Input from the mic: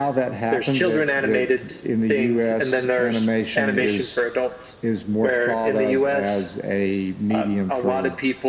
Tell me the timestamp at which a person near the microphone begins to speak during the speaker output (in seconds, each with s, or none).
none